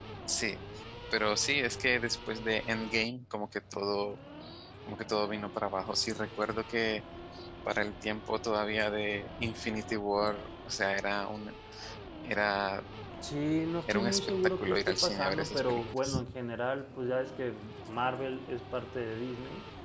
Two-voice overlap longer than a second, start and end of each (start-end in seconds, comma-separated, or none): 13.9-16.2